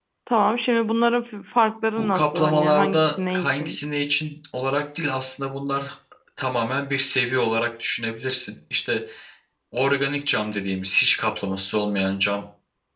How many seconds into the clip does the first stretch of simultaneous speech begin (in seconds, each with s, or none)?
2.0 s